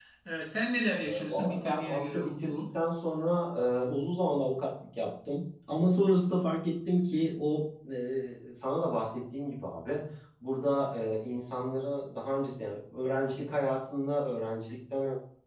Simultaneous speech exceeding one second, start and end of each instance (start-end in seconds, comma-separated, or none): 1.1-2.7